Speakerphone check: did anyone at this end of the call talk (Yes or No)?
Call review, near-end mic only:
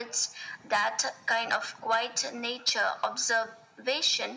No